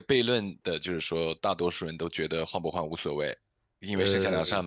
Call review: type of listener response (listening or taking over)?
listening